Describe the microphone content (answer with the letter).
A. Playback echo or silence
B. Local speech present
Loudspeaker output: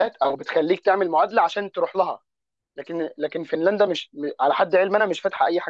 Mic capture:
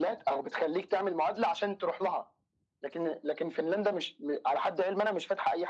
A